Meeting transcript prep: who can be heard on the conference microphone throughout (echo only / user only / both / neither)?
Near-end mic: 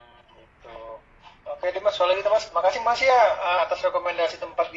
echo only